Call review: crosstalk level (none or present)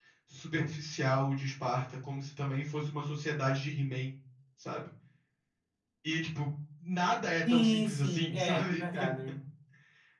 present